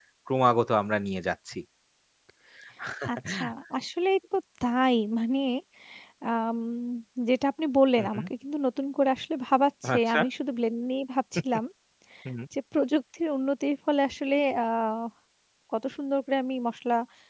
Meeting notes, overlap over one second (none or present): none